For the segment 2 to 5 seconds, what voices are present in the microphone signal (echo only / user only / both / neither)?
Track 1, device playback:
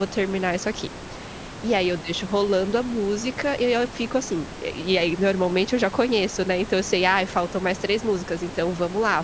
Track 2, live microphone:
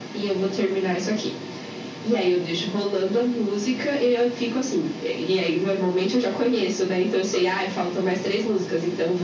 echo only